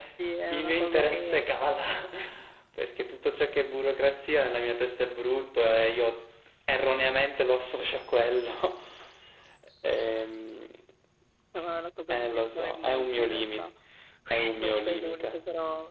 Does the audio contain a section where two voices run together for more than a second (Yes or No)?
Yes